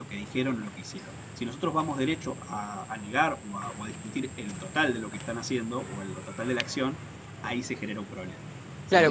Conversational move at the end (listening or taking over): taking over